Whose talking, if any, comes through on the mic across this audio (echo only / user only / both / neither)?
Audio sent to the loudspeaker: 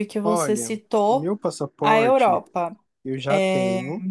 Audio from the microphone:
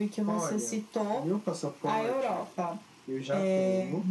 echo only